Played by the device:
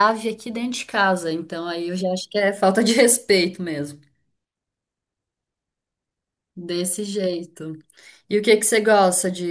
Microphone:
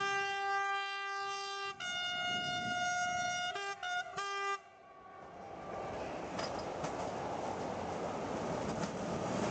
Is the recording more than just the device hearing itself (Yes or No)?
No